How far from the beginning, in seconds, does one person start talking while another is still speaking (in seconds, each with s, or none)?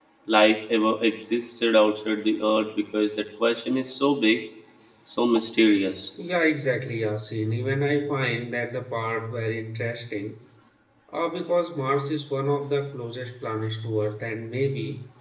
none